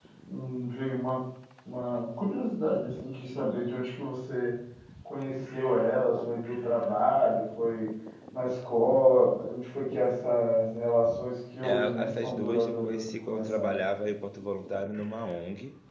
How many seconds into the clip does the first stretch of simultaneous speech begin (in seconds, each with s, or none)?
11.6 s